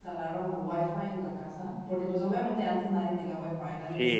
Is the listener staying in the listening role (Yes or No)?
No